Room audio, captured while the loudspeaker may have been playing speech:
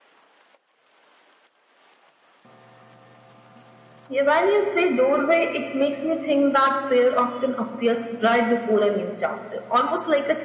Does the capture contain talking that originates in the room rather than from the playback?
No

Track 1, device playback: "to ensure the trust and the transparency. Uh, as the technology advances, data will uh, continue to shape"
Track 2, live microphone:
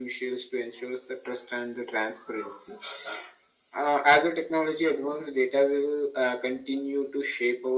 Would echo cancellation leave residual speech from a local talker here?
No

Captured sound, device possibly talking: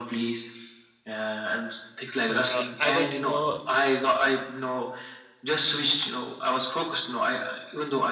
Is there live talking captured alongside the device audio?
Yes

